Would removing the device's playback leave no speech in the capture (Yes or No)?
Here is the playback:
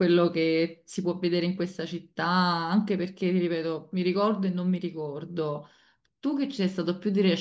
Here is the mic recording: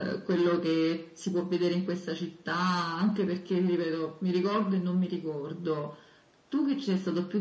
Yes